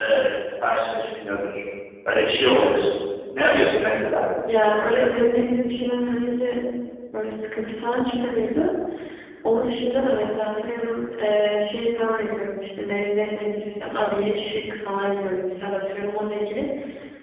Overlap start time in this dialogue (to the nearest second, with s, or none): none